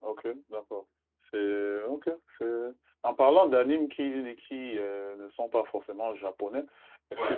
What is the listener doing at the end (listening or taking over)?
listening